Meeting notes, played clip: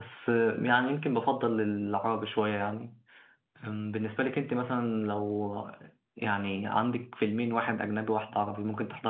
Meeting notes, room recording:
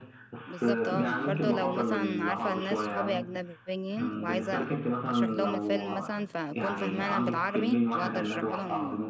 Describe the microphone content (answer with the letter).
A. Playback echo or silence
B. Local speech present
B